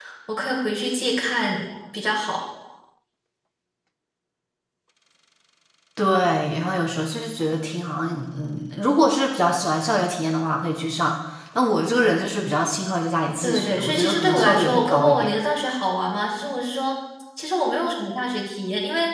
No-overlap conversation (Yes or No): No